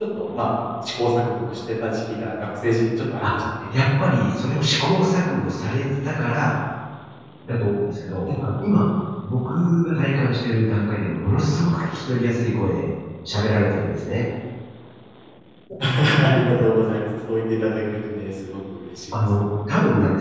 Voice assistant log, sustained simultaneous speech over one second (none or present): none